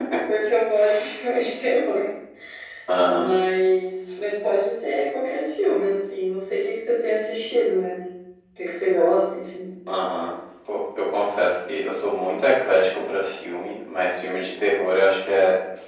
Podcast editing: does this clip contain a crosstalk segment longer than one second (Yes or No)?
No